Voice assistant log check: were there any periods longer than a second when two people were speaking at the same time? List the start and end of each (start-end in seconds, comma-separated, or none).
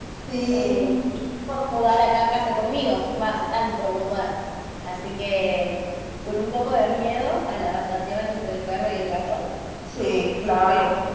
none